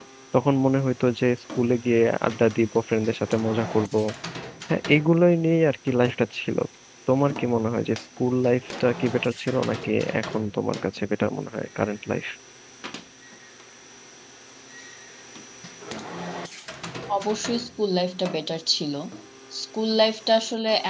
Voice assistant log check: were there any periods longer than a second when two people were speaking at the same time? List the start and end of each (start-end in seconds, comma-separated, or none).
none